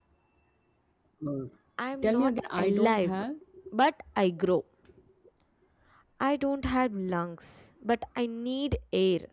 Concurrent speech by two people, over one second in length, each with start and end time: 2.0-3.2

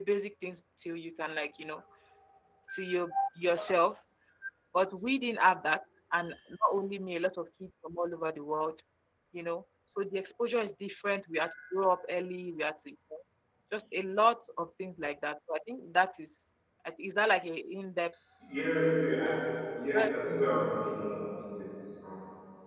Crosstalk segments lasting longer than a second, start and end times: none

